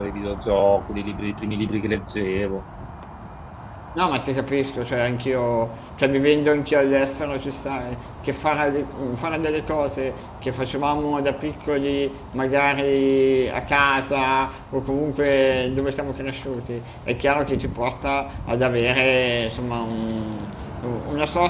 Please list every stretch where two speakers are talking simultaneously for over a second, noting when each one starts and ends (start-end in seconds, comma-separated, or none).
none